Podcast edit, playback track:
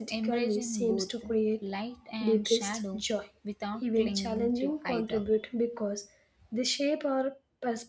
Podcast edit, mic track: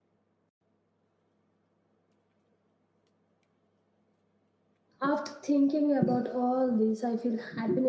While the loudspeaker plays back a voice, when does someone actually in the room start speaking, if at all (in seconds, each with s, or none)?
5.0 s